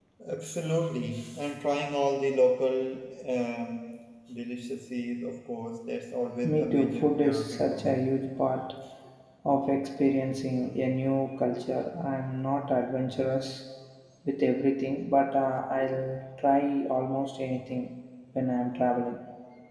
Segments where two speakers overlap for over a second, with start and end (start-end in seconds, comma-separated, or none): 6.4-8.1